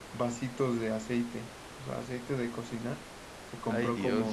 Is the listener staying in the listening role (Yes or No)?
Yes